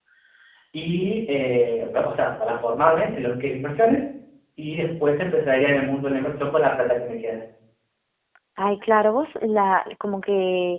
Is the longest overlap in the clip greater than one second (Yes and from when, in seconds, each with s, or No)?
No